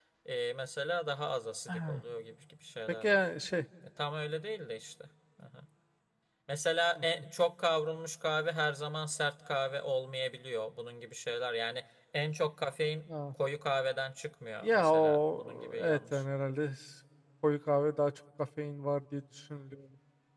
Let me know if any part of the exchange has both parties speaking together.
Yes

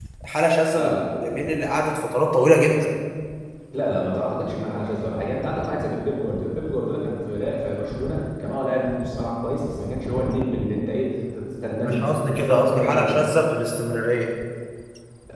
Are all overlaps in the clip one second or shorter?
No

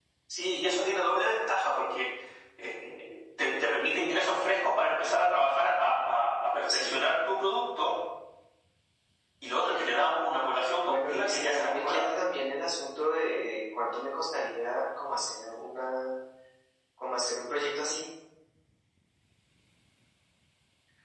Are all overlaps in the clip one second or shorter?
No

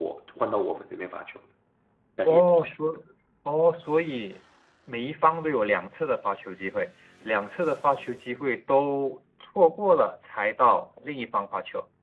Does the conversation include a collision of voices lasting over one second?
No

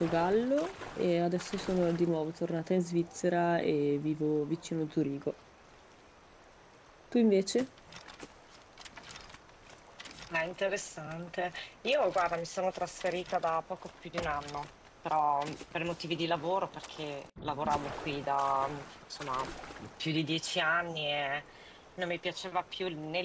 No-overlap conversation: Yes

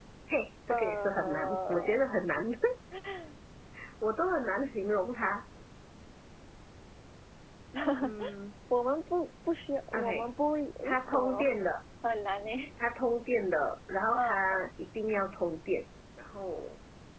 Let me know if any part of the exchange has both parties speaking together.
Yes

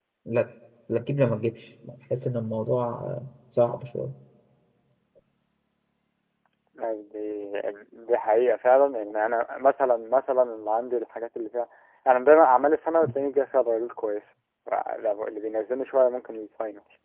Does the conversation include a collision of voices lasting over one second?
No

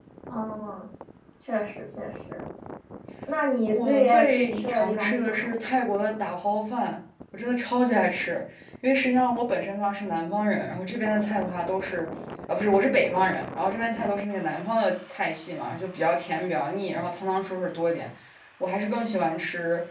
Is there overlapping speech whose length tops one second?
Yes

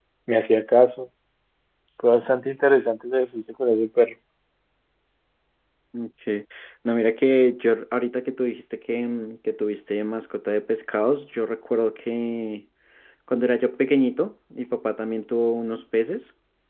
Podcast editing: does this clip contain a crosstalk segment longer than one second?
No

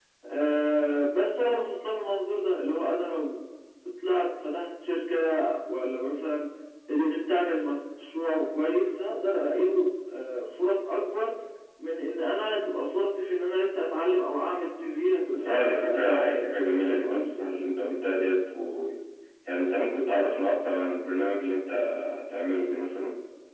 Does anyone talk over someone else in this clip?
Yes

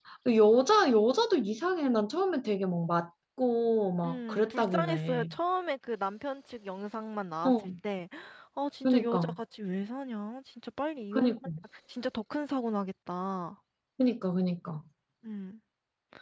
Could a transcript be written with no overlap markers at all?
No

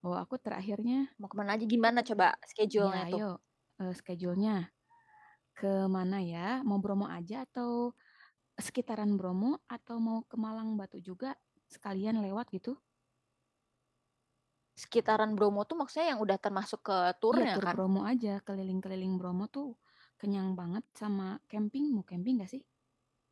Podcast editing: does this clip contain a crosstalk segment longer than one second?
No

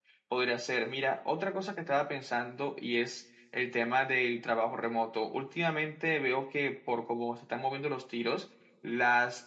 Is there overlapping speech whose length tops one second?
No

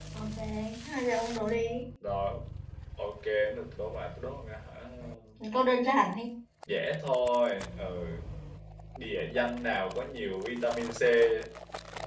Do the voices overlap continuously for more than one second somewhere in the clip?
No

